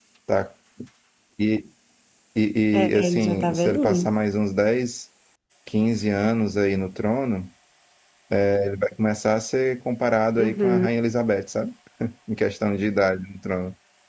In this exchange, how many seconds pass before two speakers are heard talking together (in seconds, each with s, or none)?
2.7 s